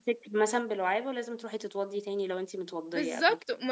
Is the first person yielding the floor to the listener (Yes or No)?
Yes